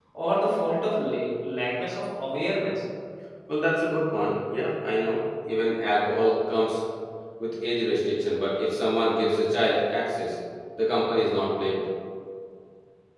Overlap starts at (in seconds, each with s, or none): none